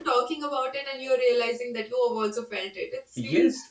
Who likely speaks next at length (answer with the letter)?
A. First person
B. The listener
B